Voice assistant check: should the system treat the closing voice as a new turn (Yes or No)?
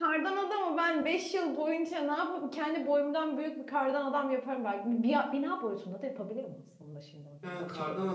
Yes